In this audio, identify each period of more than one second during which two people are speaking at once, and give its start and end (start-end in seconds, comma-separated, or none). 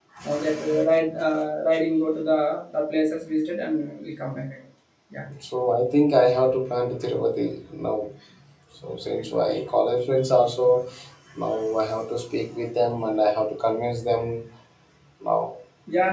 none